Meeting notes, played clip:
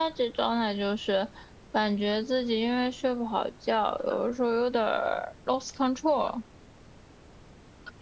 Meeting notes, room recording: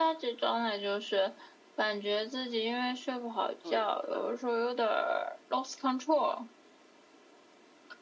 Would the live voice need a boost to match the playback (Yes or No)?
Yes